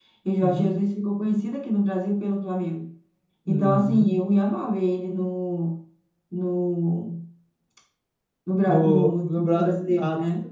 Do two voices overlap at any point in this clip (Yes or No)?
Yes